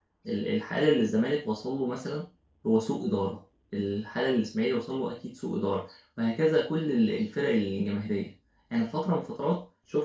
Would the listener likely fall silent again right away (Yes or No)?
Yes